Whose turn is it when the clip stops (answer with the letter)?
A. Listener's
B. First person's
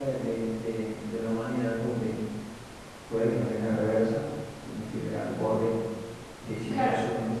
B